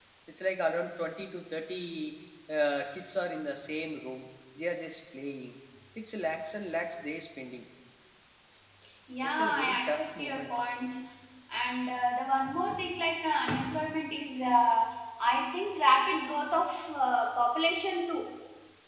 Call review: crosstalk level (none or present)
present